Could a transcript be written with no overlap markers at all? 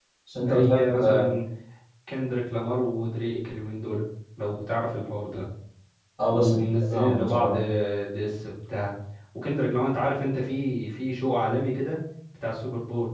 No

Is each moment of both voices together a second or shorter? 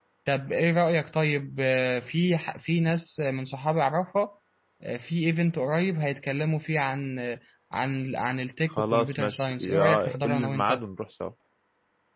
No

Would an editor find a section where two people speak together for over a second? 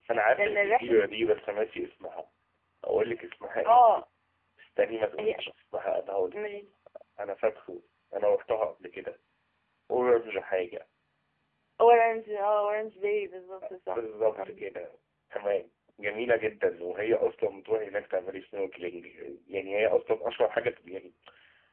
No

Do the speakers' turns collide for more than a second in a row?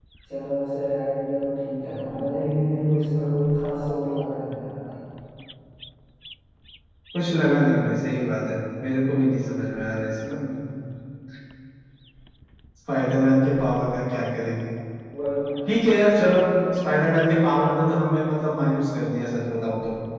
No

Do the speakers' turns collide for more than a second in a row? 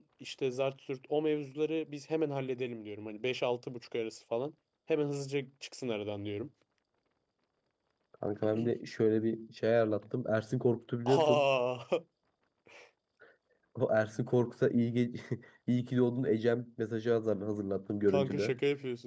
No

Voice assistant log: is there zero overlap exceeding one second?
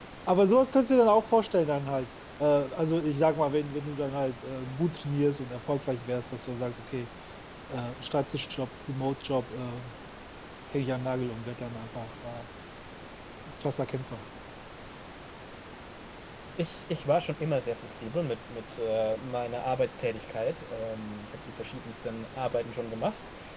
Yes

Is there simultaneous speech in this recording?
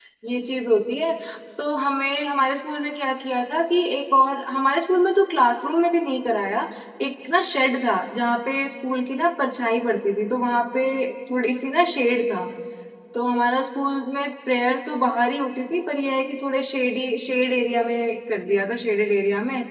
No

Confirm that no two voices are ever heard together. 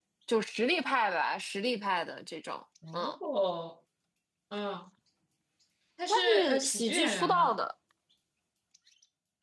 No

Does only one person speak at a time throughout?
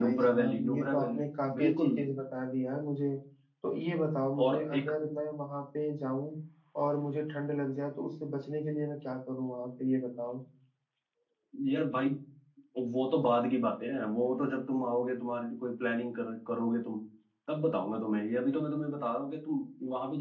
No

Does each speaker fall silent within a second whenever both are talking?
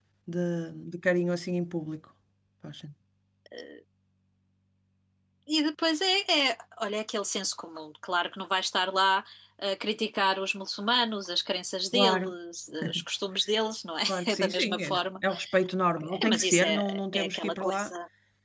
No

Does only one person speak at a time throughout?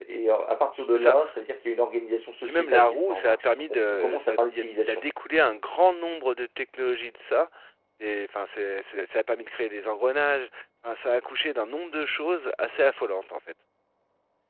No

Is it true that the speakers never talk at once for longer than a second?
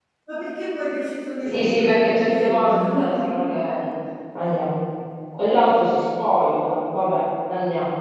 No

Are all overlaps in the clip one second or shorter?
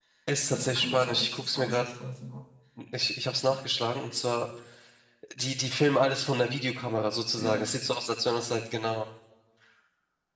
No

